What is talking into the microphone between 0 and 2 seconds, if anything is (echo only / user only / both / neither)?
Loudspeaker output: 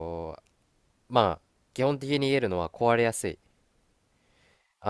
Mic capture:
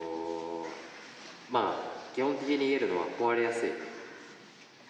echo only